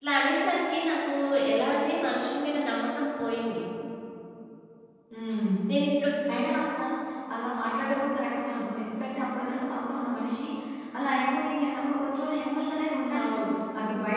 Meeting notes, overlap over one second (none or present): none